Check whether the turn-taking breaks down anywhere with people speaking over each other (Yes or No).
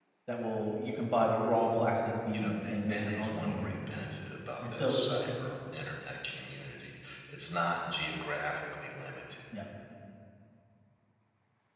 Yes